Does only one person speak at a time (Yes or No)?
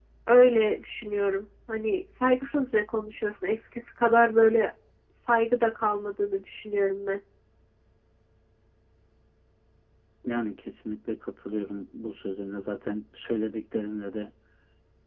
Yes